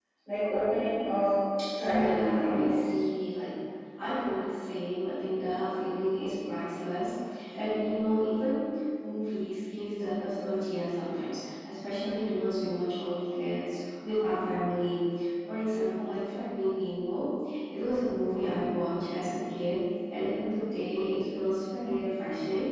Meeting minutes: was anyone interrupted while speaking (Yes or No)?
Yes